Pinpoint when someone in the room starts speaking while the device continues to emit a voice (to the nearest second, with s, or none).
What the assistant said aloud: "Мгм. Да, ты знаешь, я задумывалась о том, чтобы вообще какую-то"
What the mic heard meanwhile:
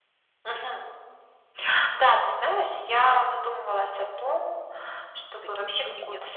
5 s